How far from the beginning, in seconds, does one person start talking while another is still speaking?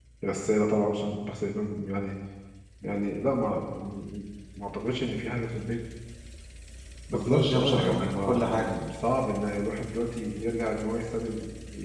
7.1 s

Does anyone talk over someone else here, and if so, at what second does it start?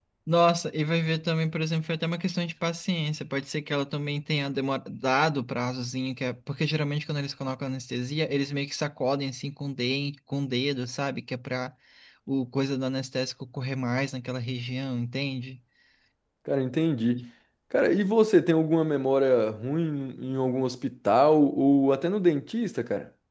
none

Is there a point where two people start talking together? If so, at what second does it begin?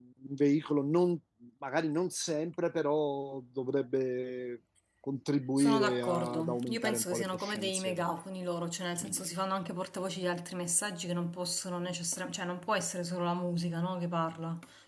5.6 s

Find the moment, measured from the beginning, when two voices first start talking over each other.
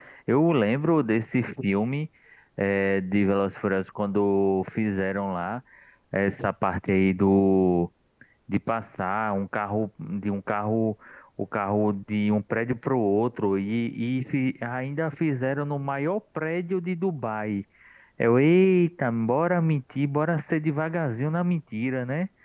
none

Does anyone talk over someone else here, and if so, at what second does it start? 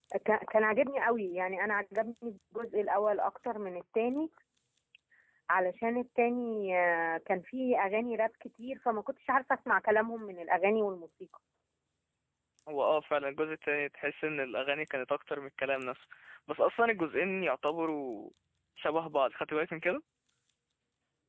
none

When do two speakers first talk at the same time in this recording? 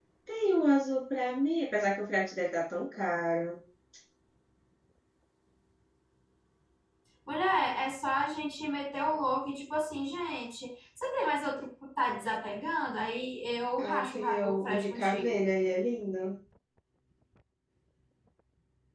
13.8 s

